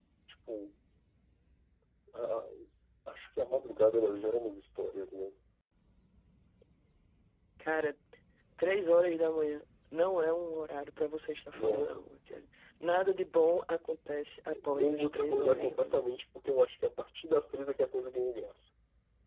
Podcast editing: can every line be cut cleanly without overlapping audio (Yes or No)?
No